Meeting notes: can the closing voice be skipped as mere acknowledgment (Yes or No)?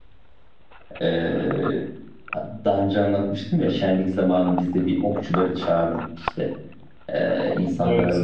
Yes